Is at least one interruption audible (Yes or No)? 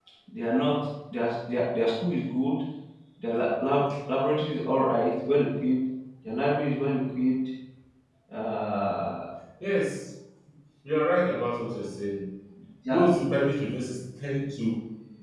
No